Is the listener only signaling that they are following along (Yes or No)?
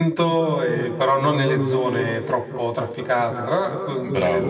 No